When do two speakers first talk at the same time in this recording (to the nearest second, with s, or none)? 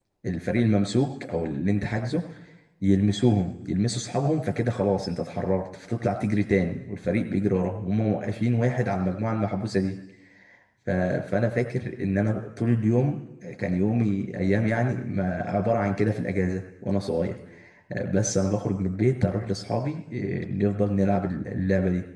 none